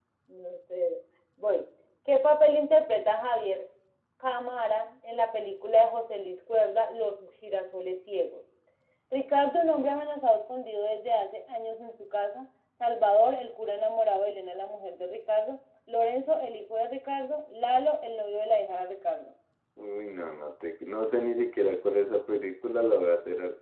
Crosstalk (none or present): none